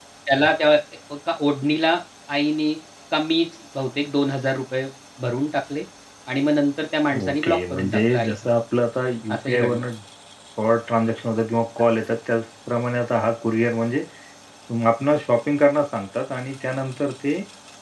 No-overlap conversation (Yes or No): No